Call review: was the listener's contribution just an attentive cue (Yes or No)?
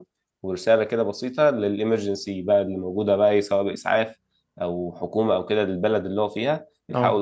Yes